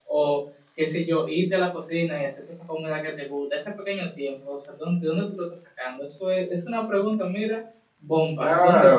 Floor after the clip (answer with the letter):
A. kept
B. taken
B